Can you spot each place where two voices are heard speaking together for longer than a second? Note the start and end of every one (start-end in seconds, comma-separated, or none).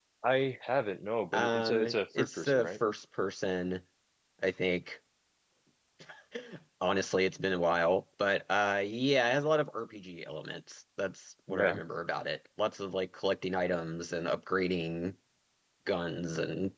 1.3-2.8